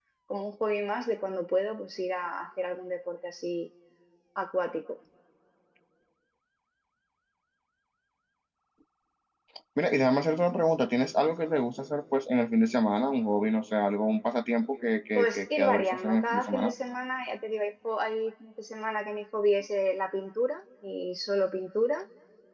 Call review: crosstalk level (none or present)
present